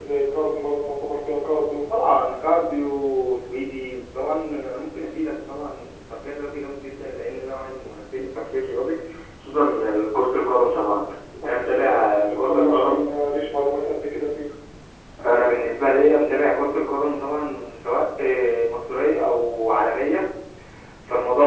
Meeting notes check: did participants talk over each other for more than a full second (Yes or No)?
Yes